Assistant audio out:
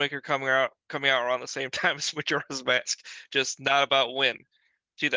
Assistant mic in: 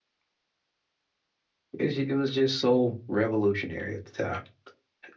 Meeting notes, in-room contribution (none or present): present